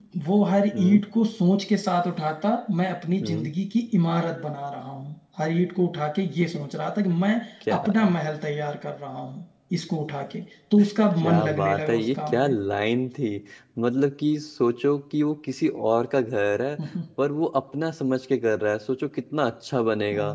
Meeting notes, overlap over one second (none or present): present